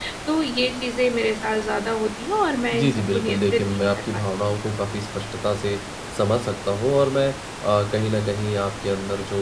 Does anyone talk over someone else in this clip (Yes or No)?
Yes